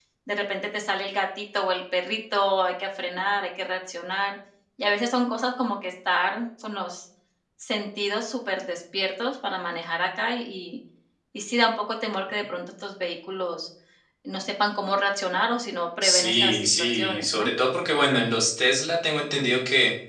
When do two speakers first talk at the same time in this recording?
16.0 s

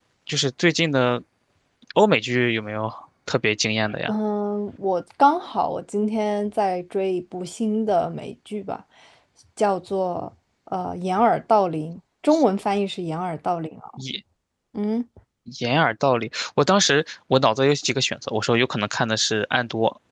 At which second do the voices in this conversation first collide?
none

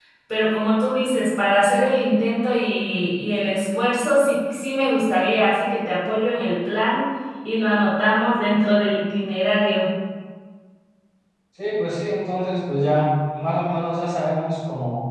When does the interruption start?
none

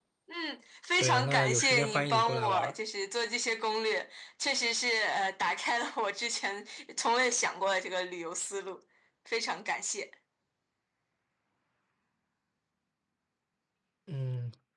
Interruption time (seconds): 1.0 s

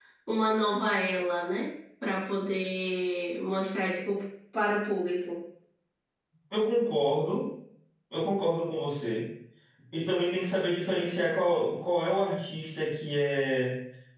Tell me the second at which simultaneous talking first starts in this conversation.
none

